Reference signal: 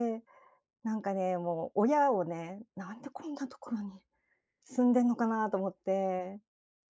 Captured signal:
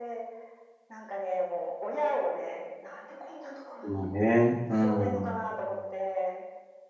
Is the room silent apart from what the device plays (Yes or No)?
No